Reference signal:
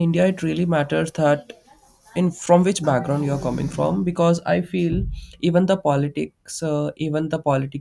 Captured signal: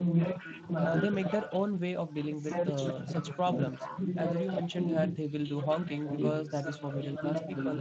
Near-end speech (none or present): present